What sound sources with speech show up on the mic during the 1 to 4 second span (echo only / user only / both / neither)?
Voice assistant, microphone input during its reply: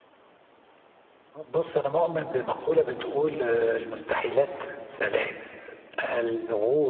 user only